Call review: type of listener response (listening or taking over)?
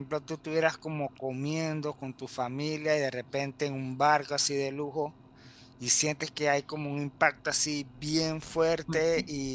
listening